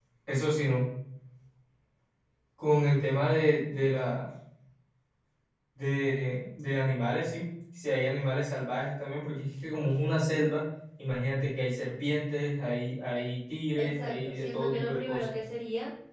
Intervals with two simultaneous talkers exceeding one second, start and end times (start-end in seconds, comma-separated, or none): 13.8-15.2